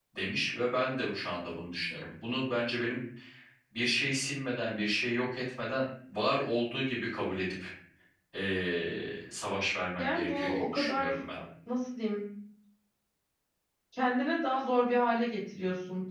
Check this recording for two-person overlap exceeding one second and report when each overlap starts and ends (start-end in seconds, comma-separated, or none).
10.0-11.2